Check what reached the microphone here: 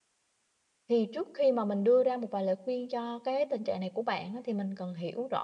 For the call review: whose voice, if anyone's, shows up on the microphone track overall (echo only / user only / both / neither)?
user only